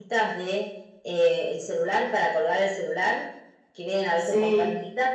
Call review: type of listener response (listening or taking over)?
listening